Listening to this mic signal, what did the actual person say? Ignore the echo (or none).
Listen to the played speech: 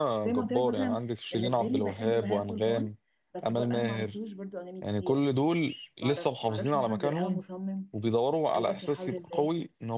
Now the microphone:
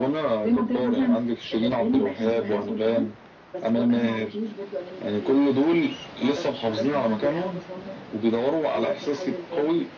none